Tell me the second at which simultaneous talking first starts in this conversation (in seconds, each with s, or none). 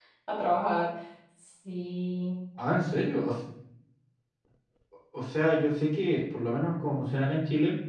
none